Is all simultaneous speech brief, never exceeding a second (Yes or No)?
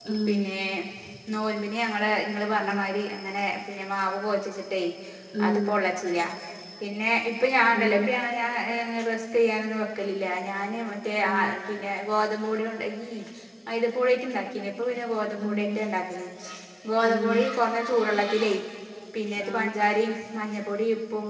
Yes